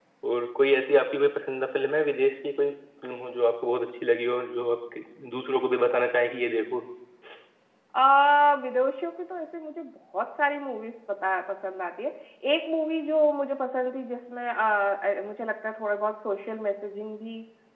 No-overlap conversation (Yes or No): Yes